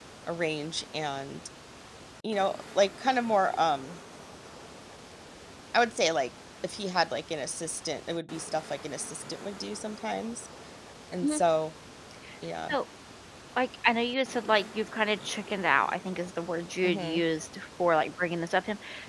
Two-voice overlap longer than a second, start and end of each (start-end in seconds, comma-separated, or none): none